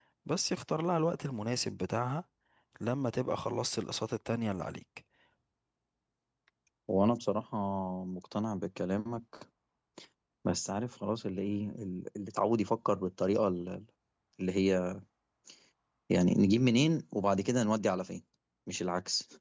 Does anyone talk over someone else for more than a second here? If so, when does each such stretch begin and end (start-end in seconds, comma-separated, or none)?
none